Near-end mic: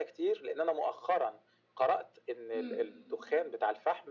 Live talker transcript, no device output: إمم.

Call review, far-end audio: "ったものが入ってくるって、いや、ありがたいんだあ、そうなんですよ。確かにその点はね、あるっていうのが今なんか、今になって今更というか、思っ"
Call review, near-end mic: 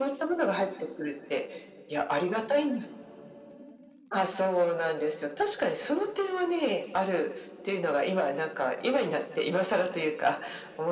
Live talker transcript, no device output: none

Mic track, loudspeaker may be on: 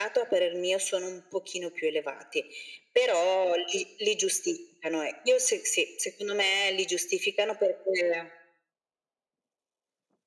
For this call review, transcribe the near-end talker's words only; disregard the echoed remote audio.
none

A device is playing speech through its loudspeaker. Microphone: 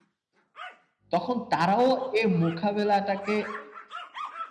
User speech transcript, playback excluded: তখন তারাও এই মোকাবেলাটাকে

